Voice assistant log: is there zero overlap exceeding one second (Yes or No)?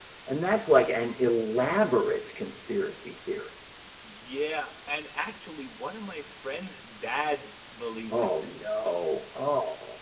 Yes